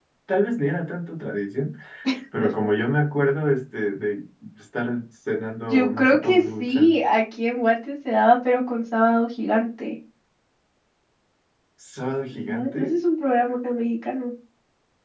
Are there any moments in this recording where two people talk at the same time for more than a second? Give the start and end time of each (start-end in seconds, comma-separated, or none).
5.7-6.9